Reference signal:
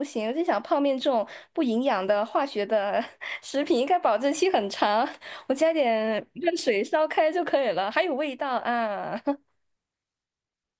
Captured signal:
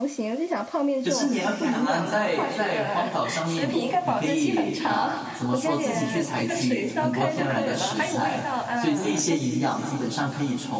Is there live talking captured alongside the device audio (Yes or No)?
Yes